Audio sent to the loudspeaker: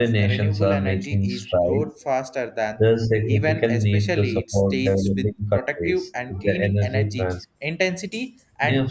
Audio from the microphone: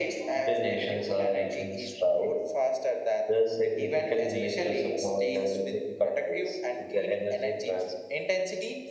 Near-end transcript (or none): none